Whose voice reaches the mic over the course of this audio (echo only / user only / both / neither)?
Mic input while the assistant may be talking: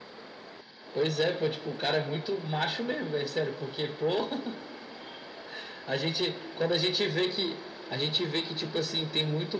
echo only